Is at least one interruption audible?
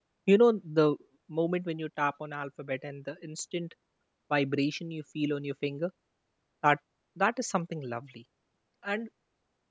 No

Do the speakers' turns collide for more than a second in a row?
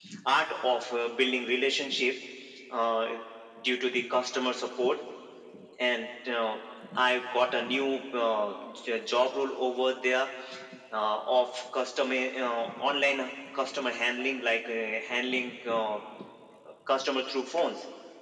No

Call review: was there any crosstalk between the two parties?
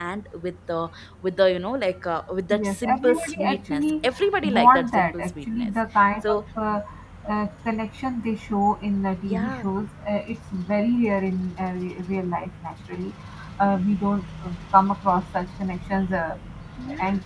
Yes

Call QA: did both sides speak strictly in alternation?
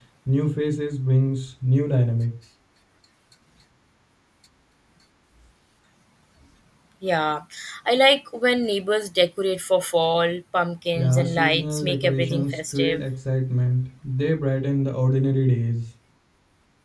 No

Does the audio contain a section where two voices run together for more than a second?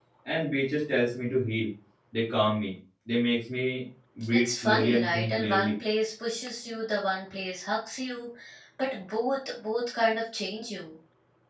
Yes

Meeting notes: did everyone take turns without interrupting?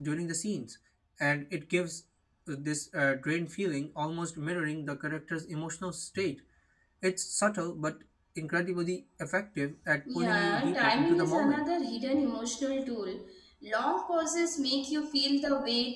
No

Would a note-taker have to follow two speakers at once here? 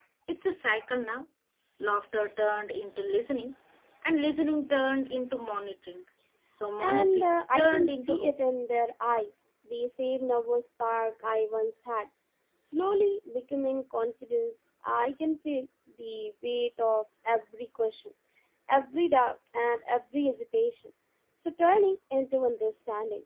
Yes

